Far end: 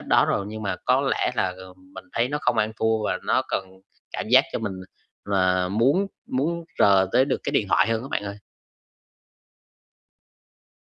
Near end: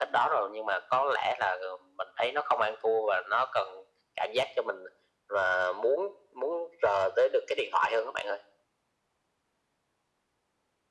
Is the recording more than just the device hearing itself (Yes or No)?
No